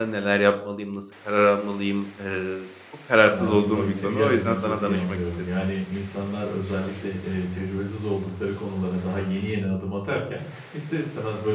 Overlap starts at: 3.3 s

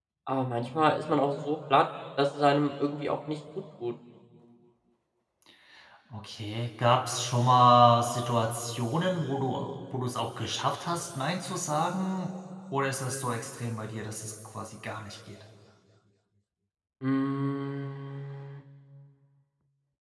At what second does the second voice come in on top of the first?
none

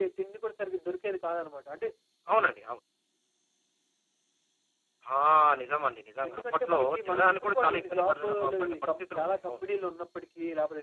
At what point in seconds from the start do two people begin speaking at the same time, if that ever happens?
6.3 s

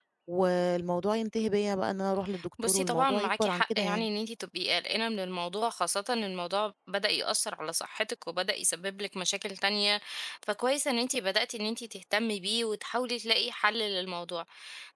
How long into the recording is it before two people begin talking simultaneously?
2.6 s

